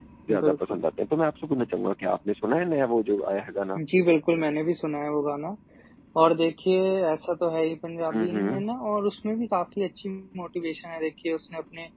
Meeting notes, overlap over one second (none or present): none